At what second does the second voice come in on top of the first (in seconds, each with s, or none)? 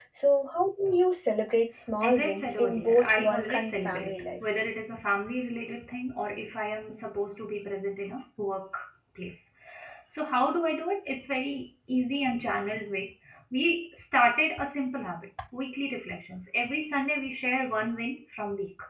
2.0 s